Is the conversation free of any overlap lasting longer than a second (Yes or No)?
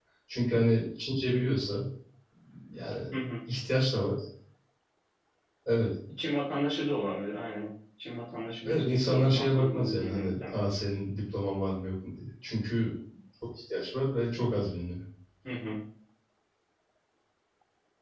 No